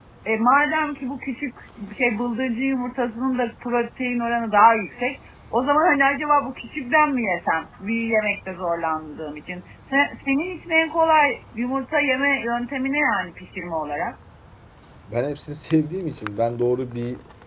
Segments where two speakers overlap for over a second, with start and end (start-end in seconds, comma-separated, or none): none